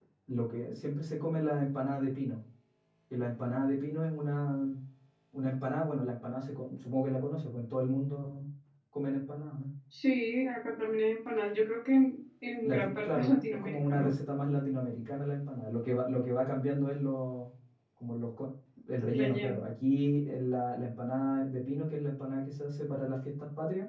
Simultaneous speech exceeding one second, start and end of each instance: 12.6-14.1

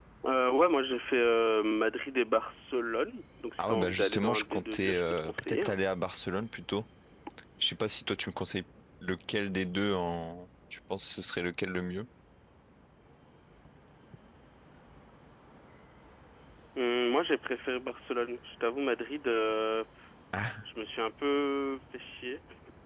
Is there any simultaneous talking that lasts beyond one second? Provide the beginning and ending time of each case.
3.6-5.8

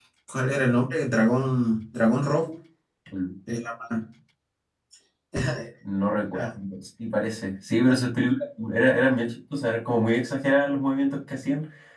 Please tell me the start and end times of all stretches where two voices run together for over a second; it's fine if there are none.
none

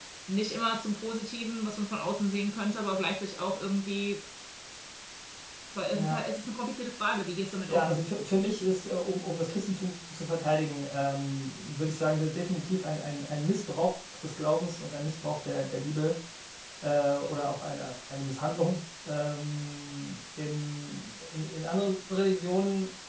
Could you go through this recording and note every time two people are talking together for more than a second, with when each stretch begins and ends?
none

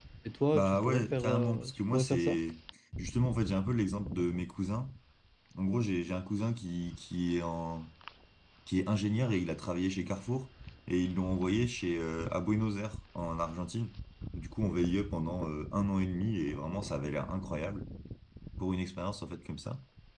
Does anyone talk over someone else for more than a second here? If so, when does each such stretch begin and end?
0.5-2.4

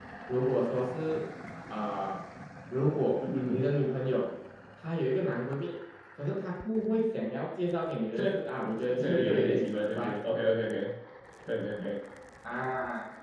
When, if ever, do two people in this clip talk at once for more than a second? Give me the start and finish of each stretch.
8.8-10.1

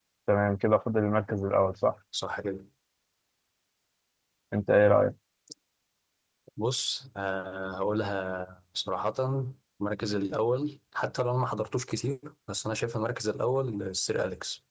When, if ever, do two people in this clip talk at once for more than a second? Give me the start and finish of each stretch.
none

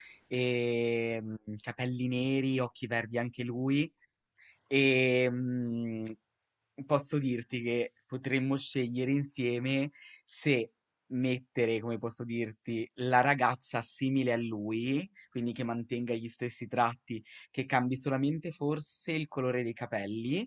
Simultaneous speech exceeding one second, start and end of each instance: none

